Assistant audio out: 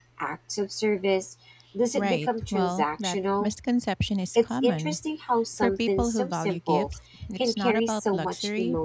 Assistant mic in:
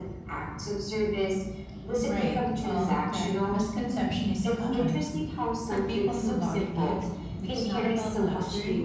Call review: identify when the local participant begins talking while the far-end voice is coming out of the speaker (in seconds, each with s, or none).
none